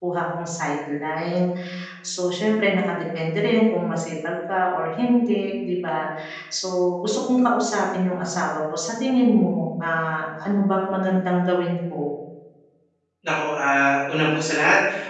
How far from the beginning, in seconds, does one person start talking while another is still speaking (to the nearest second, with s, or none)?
none